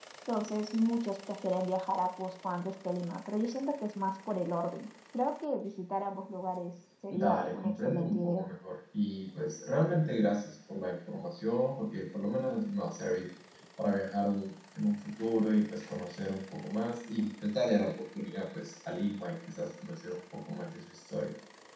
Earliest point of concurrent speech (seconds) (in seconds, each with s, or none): 7.1 s